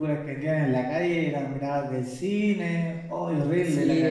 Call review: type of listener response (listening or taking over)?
taking over